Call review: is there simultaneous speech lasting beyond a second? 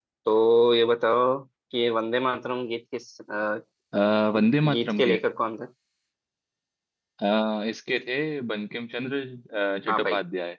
No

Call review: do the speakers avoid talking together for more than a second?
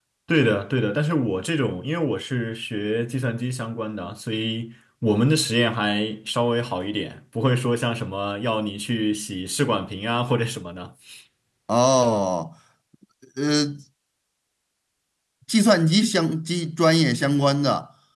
Yes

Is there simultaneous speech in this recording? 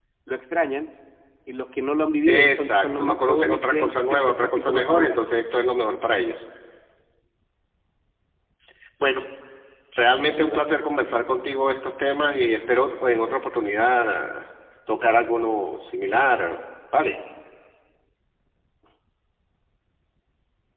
Yes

